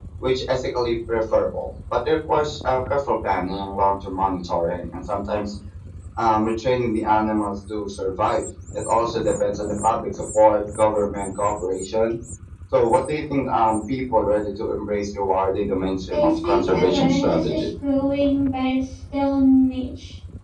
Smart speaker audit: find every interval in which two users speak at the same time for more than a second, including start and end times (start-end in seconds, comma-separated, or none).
16.1-17.7